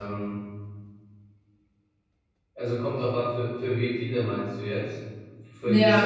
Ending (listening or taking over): taking over